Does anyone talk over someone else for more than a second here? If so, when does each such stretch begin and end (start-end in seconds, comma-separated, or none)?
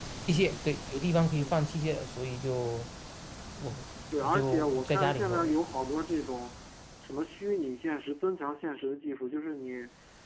4.2-5.5